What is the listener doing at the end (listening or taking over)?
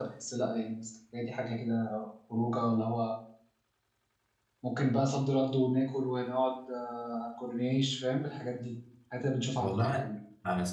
taking over